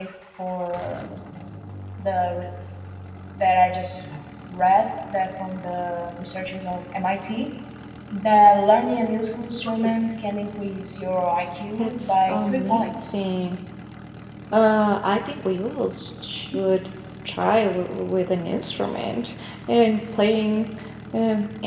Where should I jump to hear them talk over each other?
11.8 s

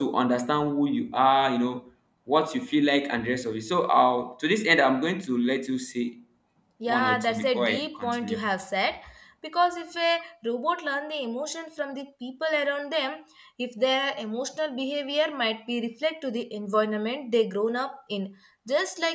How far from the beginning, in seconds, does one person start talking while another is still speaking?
6.9 s

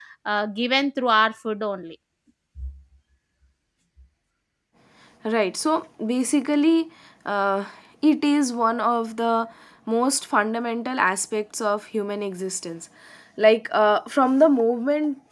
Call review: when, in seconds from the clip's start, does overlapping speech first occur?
none

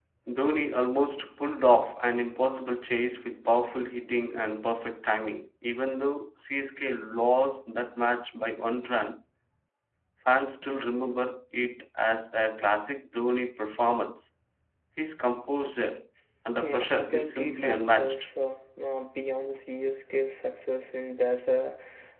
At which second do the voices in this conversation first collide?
16.6 s

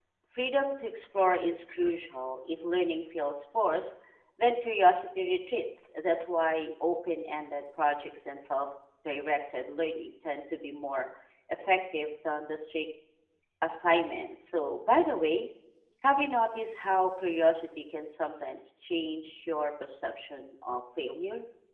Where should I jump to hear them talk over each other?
none

